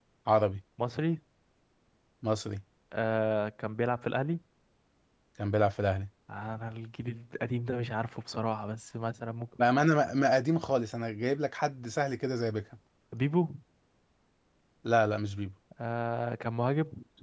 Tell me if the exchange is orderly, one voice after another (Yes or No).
Yes